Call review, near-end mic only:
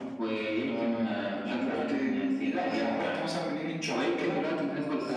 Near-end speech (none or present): none